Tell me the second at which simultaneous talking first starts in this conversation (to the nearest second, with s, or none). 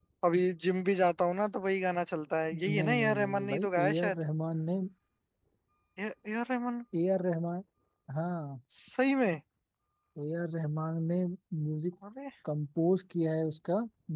3 s